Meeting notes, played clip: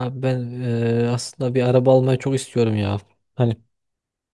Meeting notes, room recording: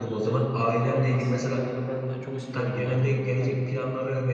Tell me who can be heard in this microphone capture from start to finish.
both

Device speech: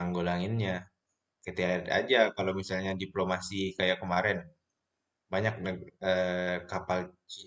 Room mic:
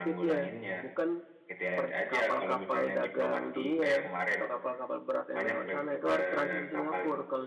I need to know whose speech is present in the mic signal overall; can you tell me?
both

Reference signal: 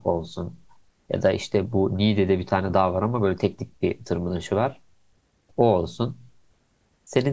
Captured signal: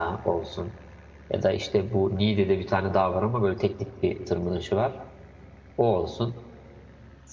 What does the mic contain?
echo only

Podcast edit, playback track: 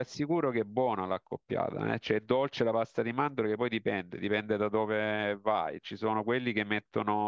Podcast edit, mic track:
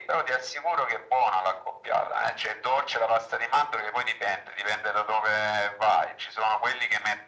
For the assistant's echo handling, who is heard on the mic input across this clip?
echo only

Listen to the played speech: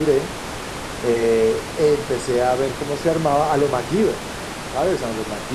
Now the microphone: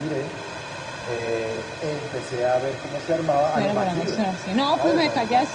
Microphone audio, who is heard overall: both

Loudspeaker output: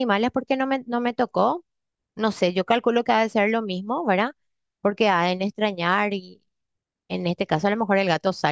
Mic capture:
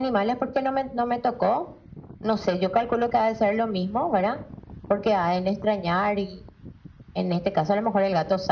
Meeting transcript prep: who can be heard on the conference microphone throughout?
echo only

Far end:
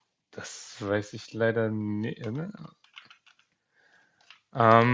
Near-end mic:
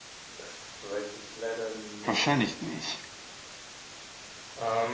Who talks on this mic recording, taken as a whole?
both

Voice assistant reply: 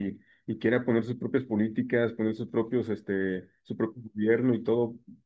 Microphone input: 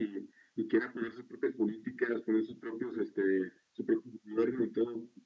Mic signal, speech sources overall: echo only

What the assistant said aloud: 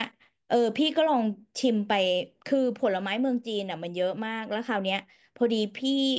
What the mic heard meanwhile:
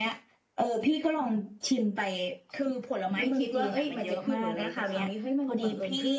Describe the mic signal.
both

